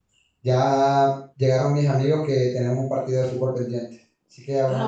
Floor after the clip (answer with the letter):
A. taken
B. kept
A